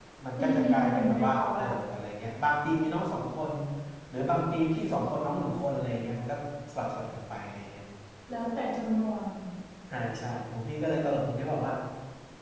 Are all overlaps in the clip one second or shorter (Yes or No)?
No